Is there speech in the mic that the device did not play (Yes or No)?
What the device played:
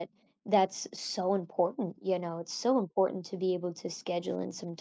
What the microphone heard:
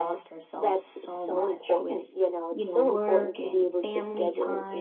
Yes